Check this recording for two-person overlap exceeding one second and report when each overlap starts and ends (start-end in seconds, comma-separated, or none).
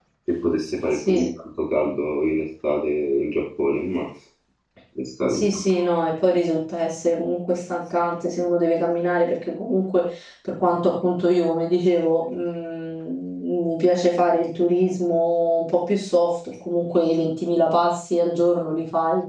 none